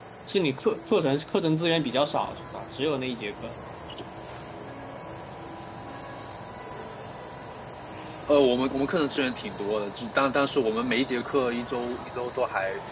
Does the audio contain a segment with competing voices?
No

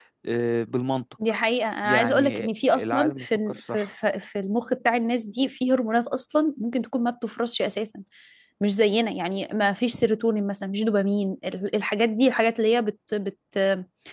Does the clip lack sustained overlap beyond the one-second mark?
No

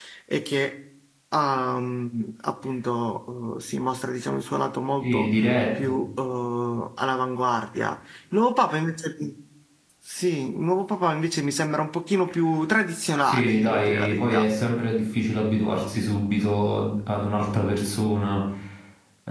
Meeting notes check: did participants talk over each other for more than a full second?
Yes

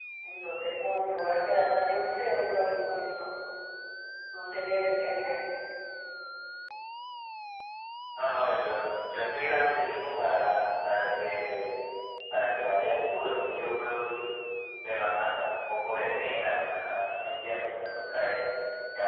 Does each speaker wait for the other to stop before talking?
Yes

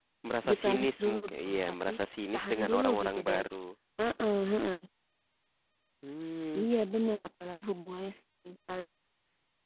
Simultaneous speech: Yes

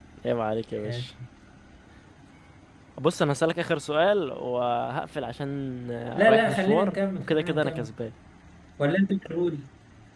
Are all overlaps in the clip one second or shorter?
No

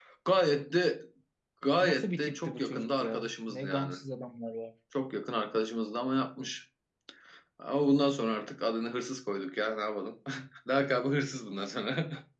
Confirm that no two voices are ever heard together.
No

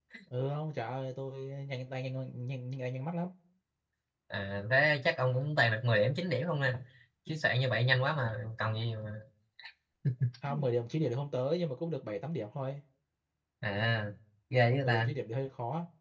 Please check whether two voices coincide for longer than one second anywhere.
No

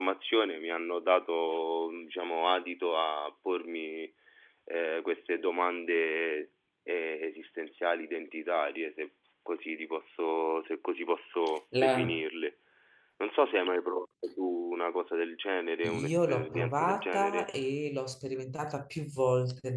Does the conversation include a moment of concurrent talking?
Yes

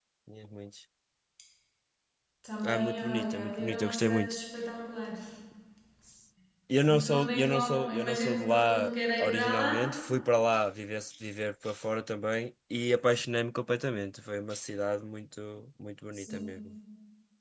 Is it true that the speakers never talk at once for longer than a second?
No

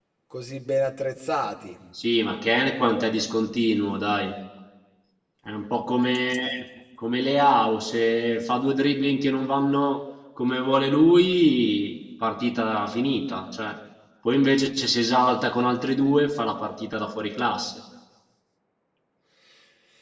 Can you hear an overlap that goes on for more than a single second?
No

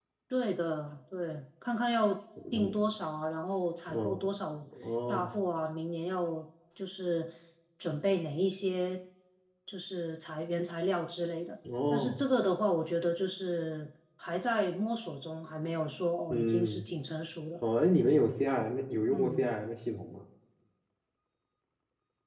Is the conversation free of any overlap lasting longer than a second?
Yes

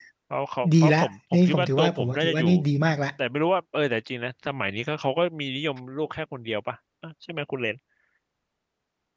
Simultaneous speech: Yes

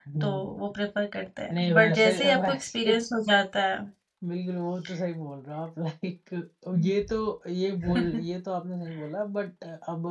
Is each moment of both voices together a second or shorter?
No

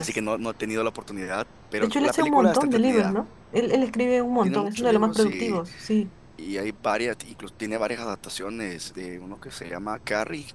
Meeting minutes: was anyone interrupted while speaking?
Yes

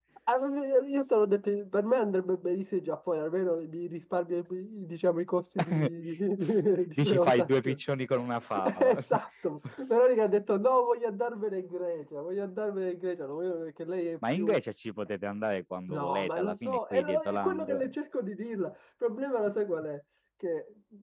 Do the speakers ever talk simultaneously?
Yes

